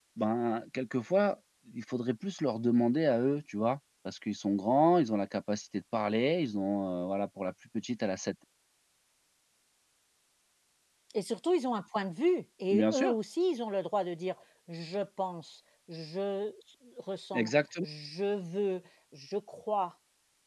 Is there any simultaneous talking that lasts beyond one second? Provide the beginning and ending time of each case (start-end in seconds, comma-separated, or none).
none